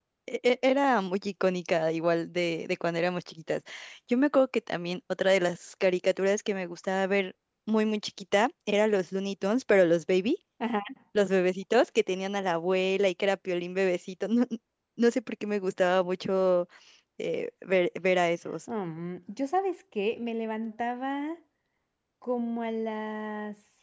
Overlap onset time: none

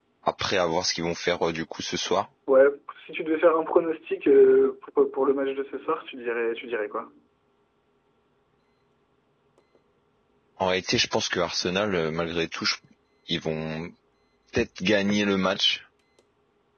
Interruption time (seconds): none

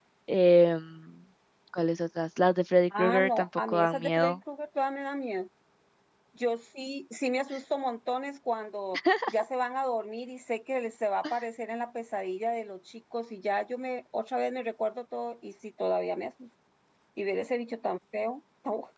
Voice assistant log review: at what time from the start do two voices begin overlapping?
3.0 s

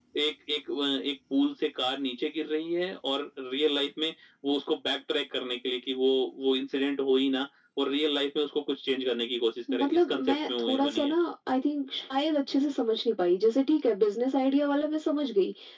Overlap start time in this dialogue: 9.7 s

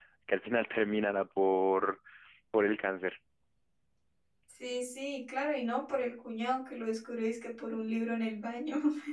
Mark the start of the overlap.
none

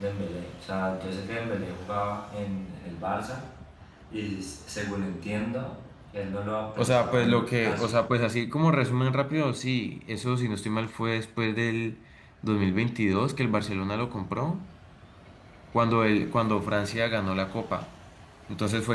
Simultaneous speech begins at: 6.8 s

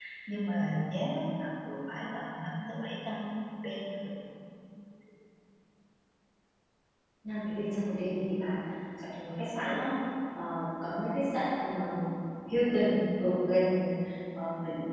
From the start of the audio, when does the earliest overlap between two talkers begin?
none

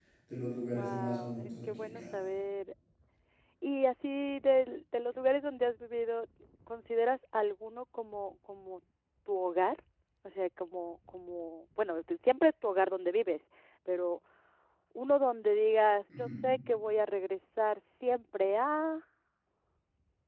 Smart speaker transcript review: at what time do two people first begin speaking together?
0.6 s

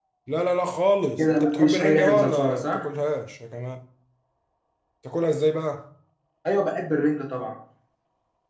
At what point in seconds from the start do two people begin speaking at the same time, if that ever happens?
1.2 s

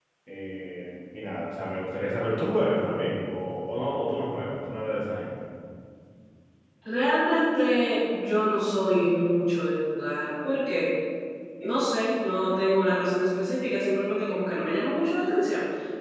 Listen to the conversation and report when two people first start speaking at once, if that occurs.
none

